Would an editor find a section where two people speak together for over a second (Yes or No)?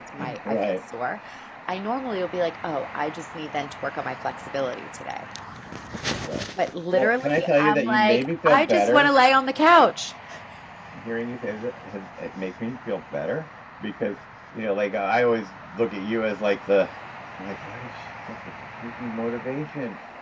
Yes